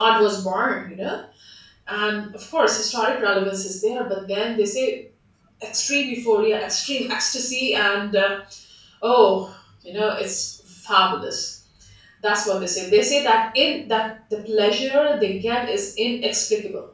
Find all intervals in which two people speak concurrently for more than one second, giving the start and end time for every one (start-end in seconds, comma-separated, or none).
none